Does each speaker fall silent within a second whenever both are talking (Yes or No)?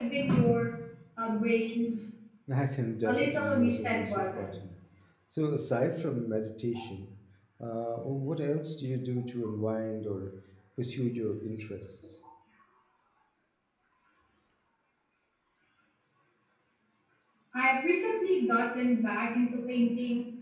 No